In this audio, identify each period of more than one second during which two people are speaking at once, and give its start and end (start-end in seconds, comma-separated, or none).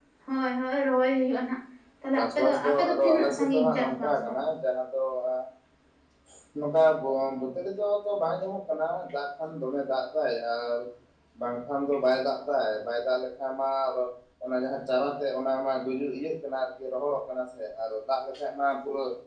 2.1-4.3